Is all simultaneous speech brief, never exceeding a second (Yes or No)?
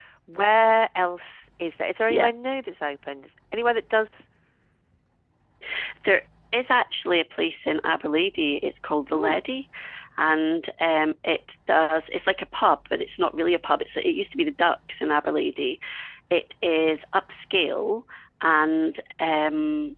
Yes